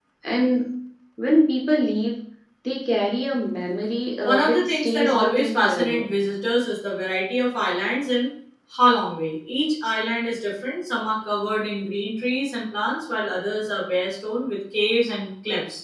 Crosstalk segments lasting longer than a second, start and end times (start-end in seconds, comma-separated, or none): 4.2-6.0